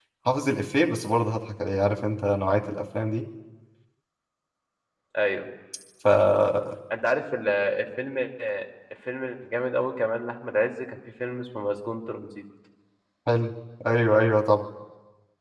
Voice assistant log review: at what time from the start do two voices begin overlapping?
none

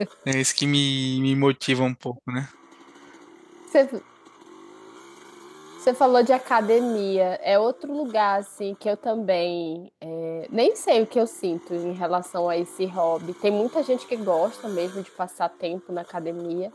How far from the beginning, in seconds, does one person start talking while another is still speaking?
none

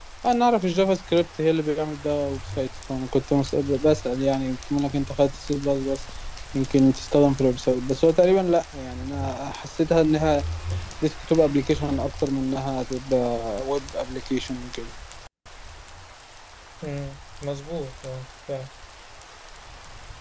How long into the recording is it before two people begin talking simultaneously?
none

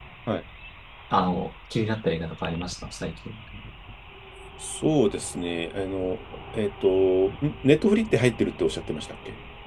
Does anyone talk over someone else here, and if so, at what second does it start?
none

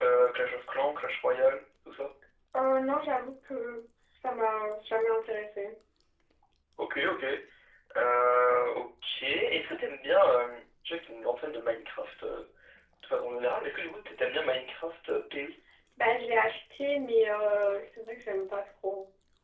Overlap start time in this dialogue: none

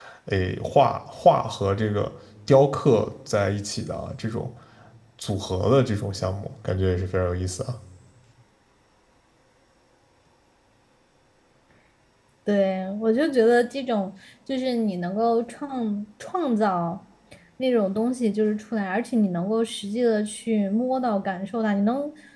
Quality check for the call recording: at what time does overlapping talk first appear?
none

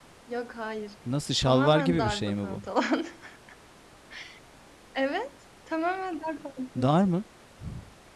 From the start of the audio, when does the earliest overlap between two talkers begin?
1.4 s

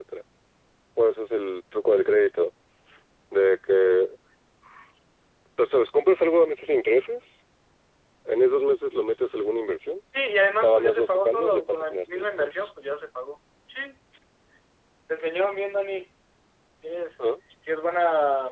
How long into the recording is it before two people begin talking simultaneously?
10.6 s

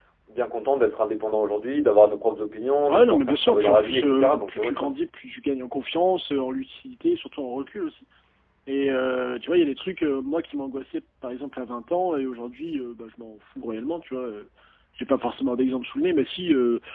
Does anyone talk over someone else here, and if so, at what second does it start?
2.8 s

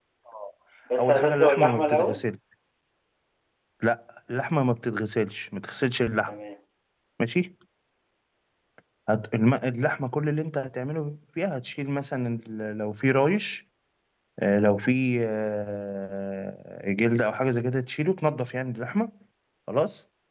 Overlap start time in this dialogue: 1.0 s

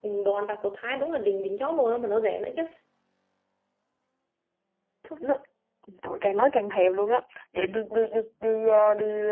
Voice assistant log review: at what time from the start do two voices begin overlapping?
none

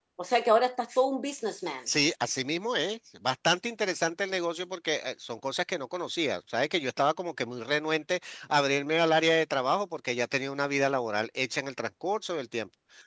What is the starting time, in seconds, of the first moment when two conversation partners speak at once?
none

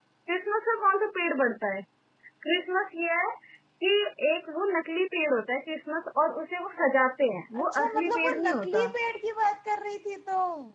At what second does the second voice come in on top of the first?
7.5 s

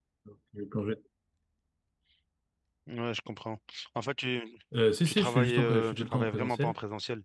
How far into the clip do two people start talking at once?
5.0 s

